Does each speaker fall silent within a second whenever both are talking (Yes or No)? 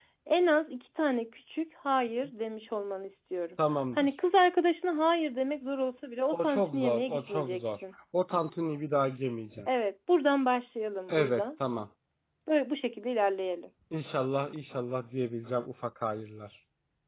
No